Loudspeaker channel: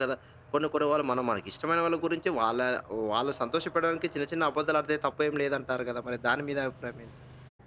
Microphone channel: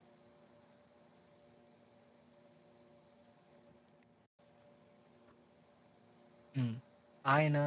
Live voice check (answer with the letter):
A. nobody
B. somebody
B